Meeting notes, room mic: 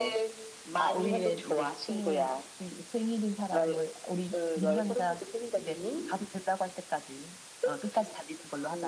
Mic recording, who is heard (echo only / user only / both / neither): both